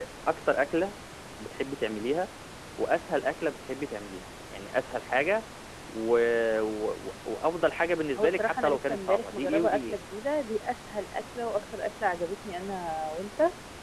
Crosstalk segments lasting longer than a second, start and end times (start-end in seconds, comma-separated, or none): 8.2-10.0